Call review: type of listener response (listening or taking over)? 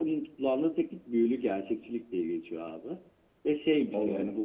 listening